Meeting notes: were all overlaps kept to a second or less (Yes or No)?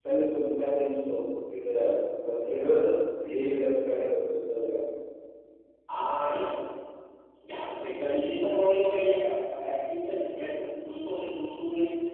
Yes